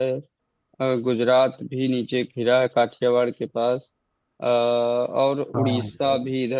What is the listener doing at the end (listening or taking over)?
listening